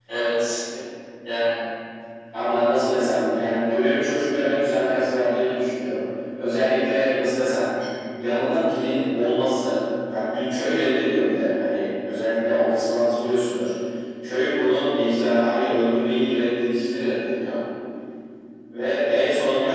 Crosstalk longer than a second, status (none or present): none